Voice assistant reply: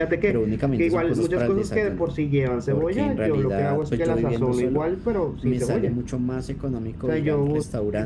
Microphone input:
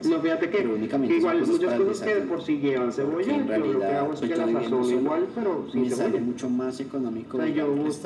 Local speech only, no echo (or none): none